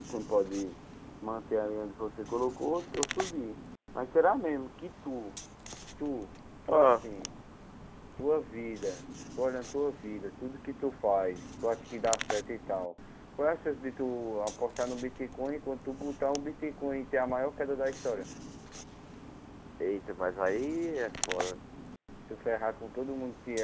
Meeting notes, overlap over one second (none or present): none